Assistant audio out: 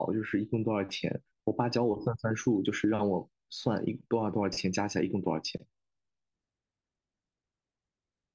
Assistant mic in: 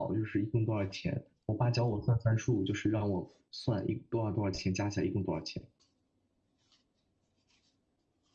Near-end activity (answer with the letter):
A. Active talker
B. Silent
B